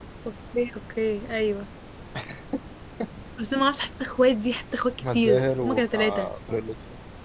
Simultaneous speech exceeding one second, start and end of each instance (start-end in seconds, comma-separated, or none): 5.0-6.3